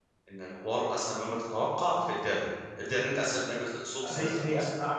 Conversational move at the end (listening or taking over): taking over